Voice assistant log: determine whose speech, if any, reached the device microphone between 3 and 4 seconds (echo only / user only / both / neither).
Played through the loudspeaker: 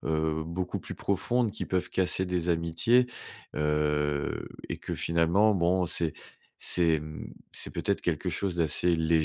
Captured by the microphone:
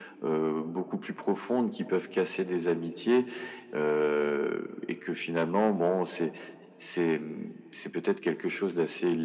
echo only